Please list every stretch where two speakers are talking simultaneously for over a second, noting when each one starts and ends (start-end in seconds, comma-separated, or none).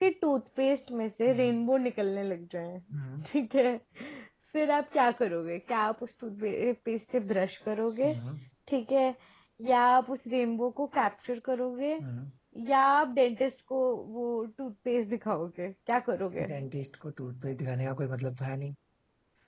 none